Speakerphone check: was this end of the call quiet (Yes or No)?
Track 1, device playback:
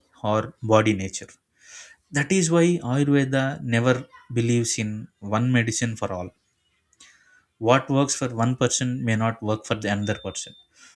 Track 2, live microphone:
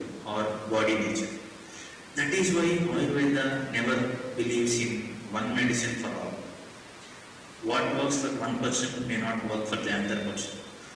Yes